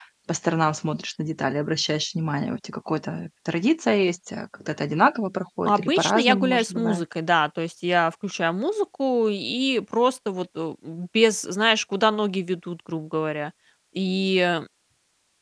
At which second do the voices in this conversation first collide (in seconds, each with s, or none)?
5.7 s